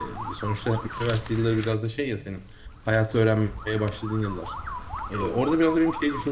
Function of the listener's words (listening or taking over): listening